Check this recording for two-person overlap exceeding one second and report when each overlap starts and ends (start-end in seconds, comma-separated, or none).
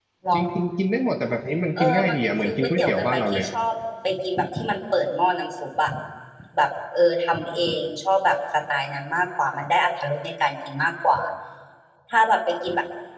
1.8-3.5